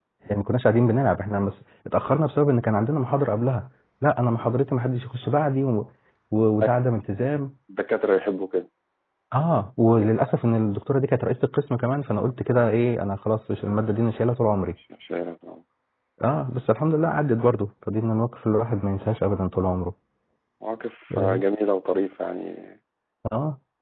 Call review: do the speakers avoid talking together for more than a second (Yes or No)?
Yes